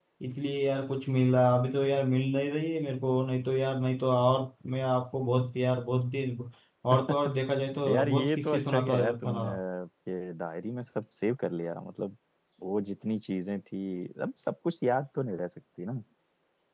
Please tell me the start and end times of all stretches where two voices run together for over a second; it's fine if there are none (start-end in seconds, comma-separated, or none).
7.9-9.3